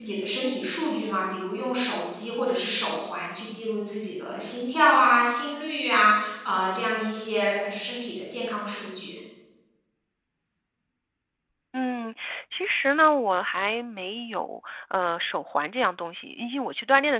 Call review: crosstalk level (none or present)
none